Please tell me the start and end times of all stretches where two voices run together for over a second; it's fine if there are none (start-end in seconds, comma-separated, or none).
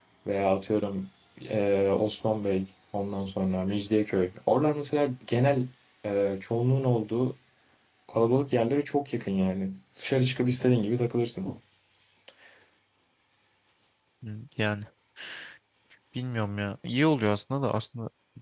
none